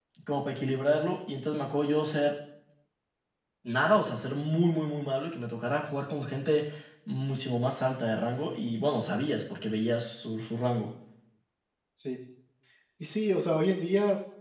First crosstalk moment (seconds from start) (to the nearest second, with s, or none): none